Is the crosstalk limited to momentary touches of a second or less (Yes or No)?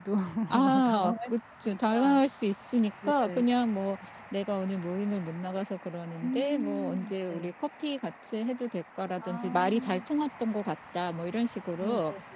No